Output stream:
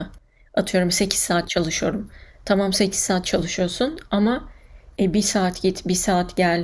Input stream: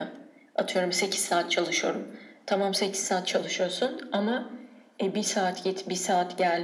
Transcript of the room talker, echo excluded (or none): none